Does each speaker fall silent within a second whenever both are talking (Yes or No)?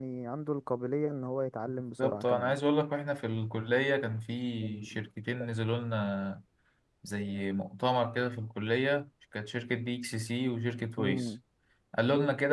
Yes